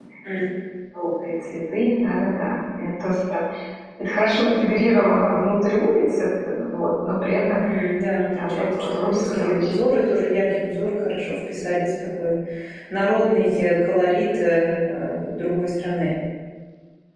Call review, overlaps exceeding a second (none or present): present